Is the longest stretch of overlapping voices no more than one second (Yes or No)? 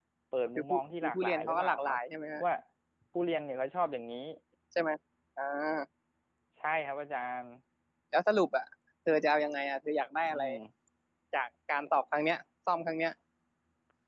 No